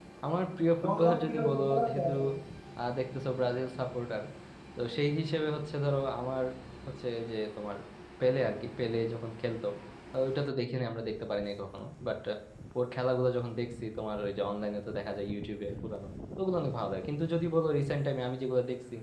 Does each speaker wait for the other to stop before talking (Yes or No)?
No